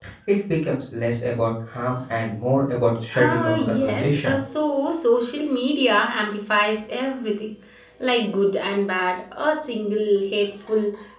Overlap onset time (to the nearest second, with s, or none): 3 s